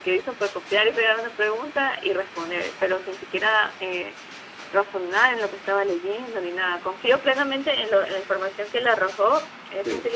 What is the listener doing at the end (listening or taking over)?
listening